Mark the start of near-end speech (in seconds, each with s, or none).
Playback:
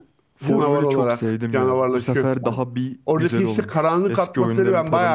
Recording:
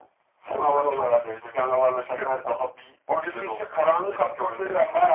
none